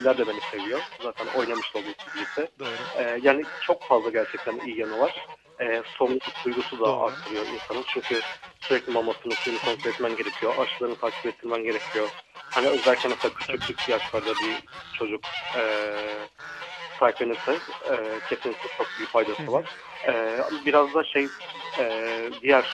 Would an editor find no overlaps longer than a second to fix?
Yes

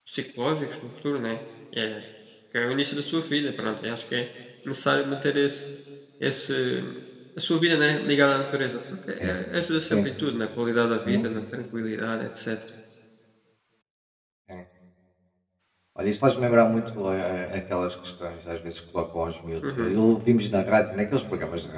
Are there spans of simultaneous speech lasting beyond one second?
No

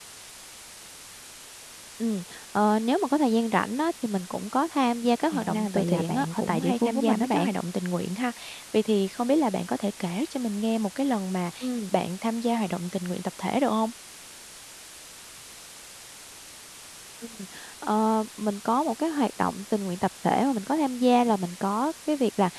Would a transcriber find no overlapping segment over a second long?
No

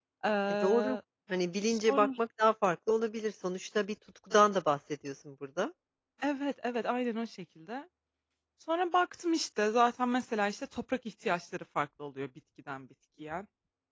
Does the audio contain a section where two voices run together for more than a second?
No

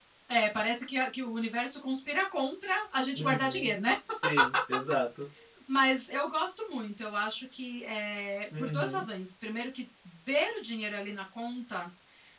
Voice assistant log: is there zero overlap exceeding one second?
Yes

